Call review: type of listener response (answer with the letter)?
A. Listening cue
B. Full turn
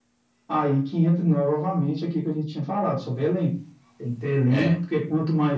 A